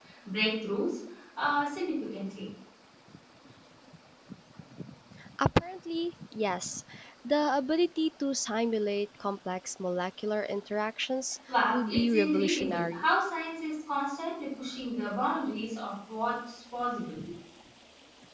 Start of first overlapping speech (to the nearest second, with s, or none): 11 s